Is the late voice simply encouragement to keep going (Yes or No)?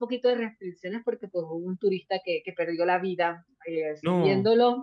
Yes